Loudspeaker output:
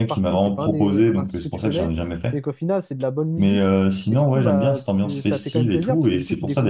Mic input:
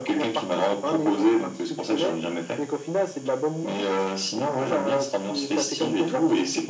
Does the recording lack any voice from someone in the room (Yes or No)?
Yes